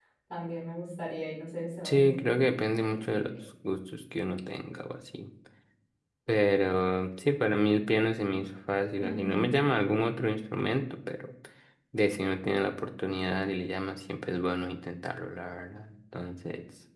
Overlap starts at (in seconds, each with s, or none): 1.8 s